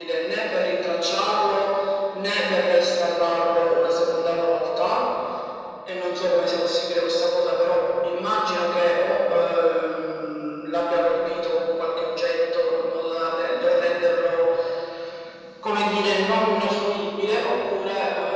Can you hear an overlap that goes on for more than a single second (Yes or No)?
No